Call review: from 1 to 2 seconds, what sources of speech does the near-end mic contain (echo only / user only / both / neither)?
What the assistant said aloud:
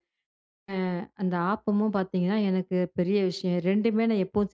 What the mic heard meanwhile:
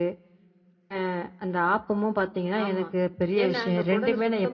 echo only